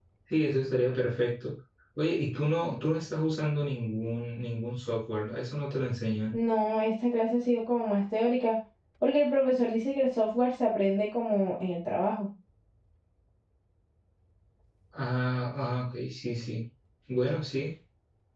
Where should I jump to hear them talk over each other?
none

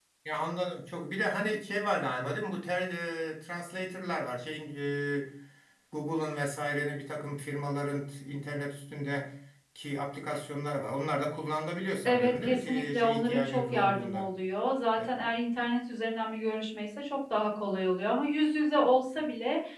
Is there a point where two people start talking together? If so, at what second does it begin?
12 s

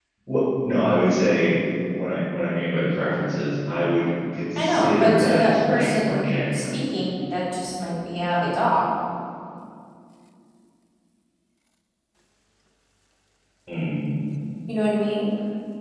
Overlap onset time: 5 s

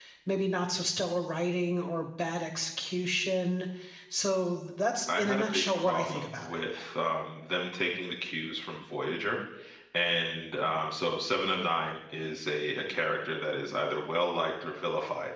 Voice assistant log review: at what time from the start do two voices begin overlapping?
5 s

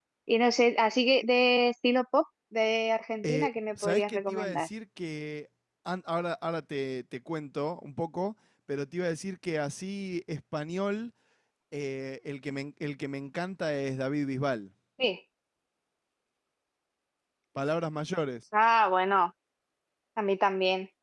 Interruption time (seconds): 3 s

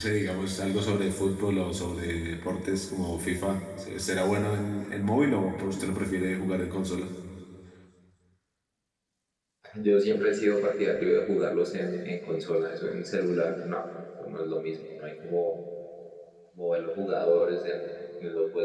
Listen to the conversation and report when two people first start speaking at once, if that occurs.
none

